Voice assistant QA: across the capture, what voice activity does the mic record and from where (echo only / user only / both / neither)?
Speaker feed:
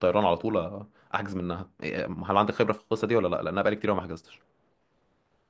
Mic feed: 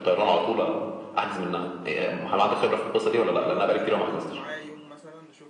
both